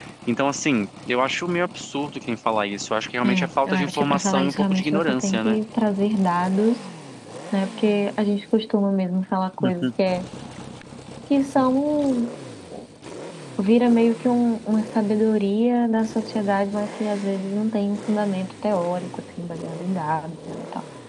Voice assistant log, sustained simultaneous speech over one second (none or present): present